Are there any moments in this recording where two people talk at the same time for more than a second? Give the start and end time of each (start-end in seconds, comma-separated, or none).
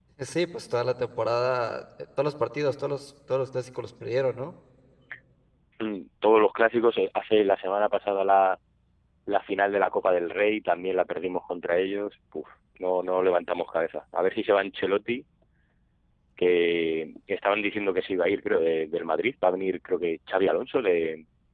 none